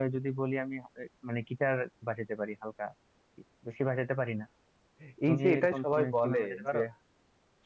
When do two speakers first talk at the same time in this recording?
5.3 s

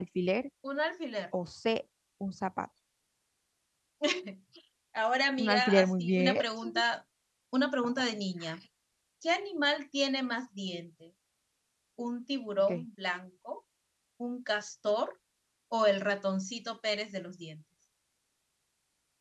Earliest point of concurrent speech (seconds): 5.4 s

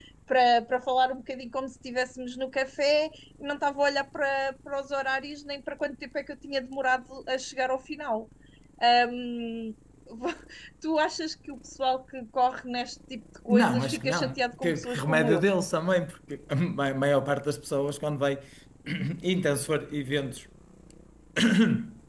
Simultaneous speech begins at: 13.5 s

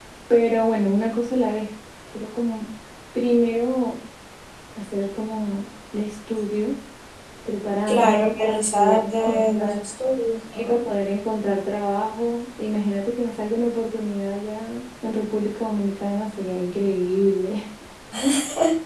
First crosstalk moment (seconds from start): 7.9 s

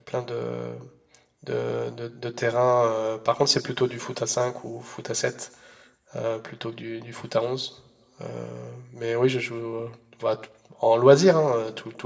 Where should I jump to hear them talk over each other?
none

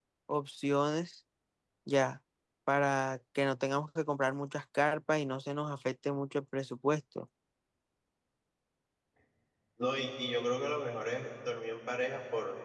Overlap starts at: none

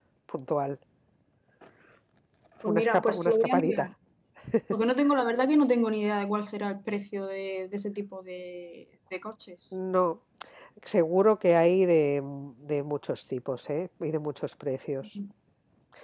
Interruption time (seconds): 2.6 s

